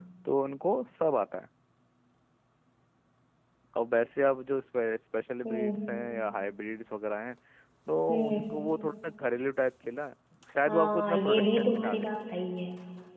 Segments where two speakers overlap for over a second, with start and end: 10.7-12.1

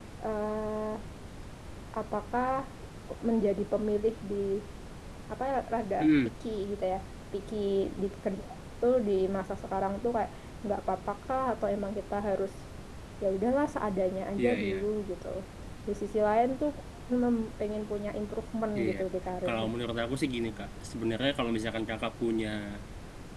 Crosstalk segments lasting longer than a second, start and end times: none

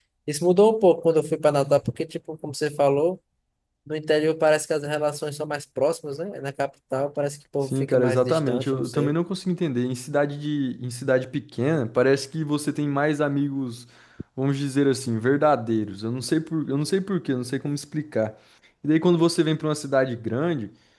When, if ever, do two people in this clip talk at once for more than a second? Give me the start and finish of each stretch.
7.7-9.1

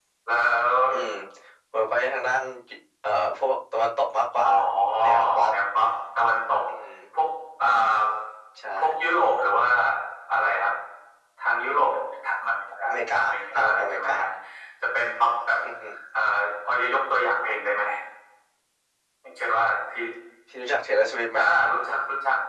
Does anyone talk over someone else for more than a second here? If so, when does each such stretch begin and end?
12.9-14.1

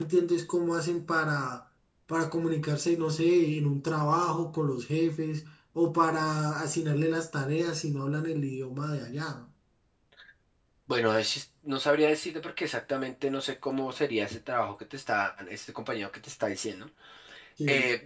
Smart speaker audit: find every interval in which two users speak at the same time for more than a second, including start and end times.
none

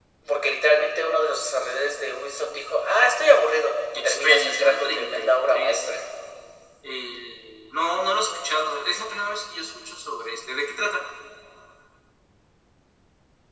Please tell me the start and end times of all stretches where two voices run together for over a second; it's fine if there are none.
4.0-5.8

